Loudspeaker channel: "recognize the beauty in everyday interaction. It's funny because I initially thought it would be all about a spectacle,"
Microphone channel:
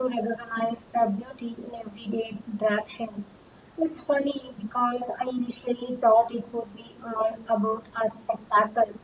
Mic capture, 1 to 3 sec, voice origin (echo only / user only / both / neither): echo only